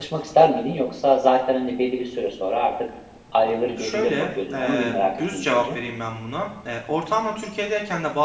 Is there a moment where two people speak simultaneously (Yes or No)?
Yes